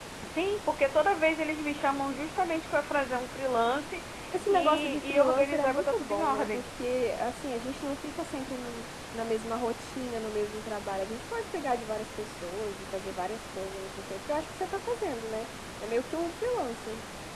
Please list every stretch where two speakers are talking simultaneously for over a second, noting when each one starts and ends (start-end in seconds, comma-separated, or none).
4.5-6.6